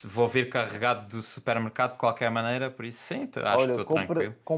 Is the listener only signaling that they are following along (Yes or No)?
No